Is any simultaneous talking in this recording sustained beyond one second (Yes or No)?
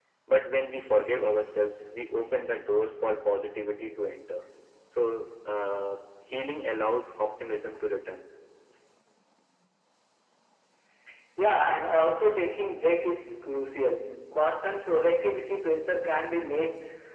No